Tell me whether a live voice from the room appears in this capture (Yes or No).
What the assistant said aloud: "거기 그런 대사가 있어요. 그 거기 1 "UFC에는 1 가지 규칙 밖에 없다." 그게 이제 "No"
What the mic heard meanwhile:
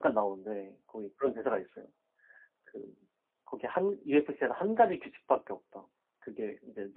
No